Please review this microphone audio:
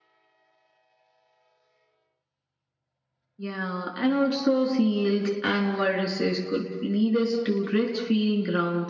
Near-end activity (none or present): none